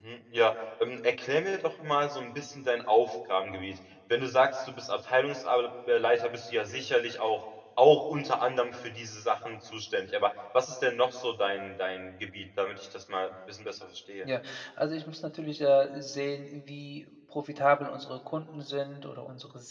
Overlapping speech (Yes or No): No